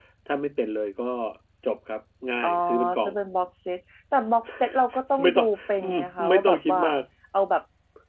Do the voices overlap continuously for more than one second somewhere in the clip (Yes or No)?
Yes